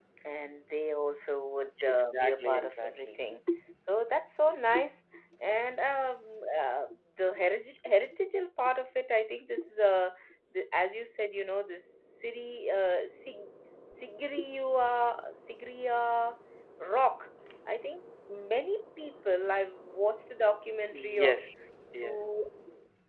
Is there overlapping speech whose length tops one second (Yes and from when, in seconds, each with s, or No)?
Yes, from 1.9 s